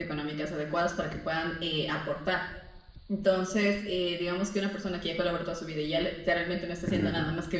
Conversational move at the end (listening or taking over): listening